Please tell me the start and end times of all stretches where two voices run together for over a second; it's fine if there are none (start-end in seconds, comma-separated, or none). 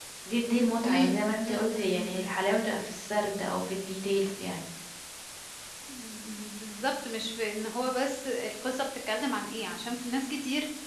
0.8-2.3